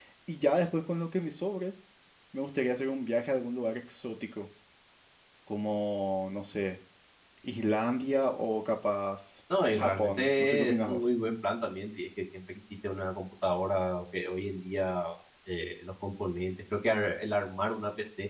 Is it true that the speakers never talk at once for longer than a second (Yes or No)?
No